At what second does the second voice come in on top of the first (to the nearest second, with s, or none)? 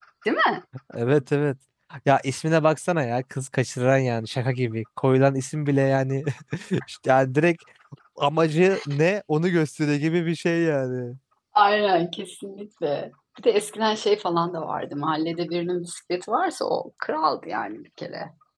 none